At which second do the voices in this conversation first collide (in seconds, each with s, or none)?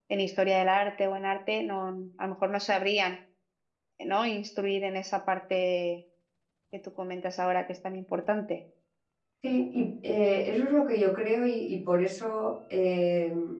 none